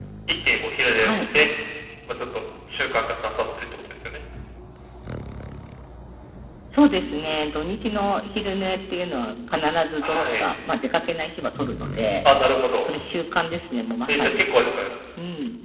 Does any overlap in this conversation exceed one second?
No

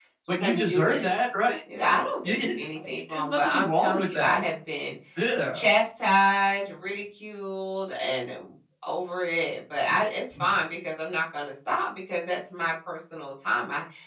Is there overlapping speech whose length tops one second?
Yes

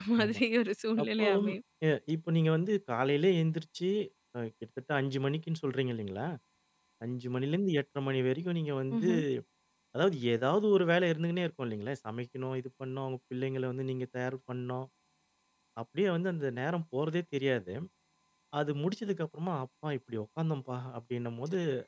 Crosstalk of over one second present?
No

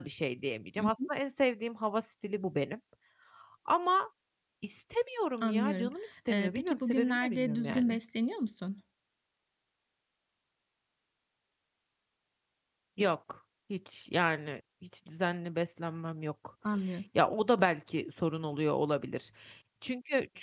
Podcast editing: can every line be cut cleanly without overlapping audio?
No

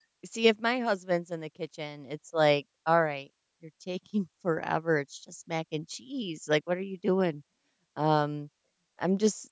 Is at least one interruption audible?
No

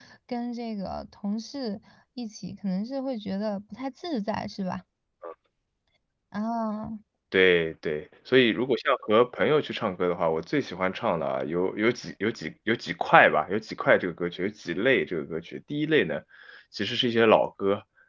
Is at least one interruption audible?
No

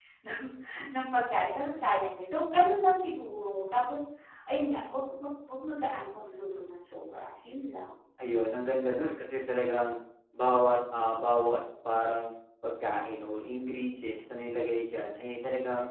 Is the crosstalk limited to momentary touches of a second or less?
Yes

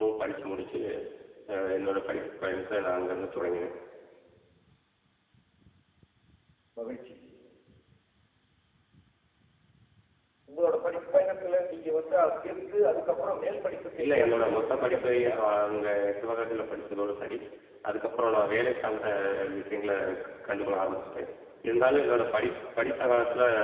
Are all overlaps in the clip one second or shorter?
No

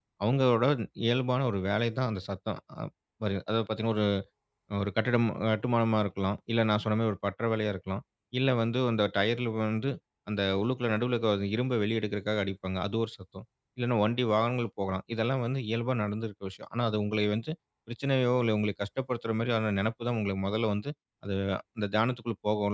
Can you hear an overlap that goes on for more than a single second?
No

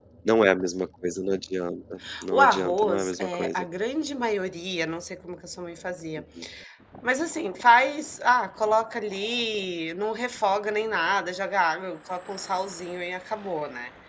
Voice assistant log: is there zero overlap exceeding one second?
No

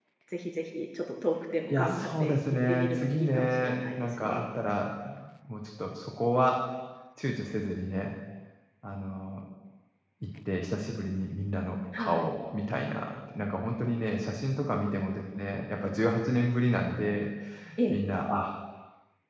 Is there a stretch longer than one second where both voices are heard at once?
Yes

